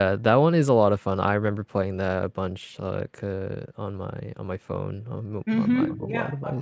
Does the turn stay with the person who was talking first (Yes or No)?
No